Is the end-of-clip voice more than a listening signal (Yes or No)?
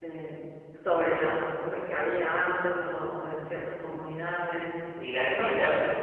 Yes